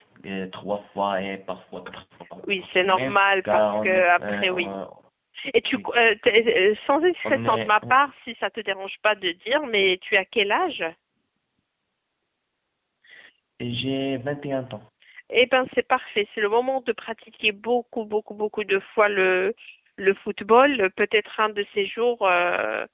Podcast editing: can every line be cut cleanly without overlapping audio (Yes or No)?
No